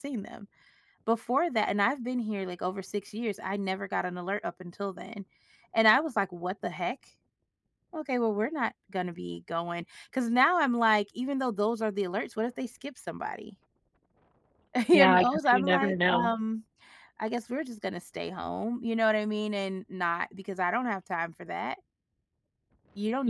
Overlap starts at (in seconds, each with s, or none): 14.9 s